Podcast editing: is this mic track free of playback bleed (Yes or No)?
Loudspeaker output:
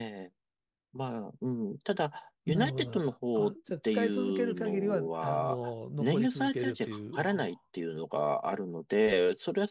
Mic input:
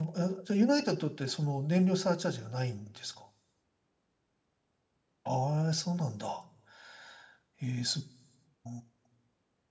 Yes